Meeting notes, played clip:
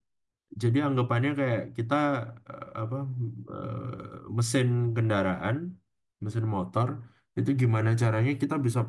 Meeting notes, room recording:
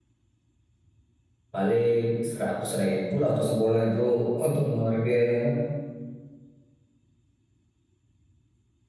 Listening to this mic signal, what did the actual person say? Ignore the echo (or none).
paling seratus ribu lah untuk sebulan itu untuk ngeluarin biayanya